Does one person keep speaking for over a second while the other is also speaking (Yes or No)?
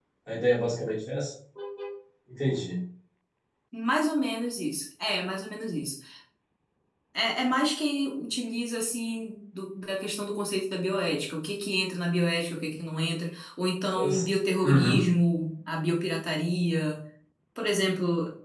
No